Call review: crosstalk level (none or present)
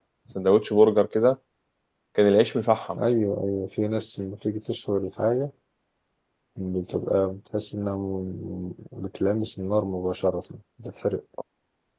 none